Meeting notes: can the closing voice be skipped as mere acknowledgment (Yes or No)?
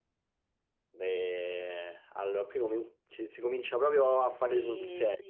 No